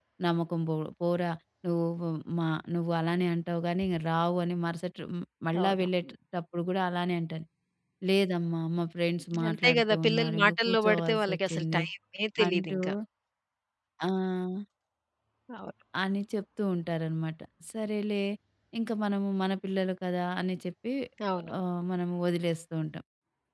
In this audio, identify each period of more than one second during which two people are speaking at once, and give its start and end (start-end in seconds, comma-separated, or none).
9.5-11.8